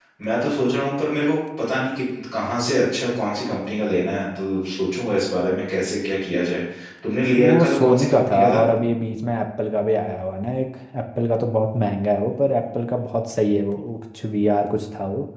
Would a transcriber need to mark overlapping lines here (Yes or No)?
Yes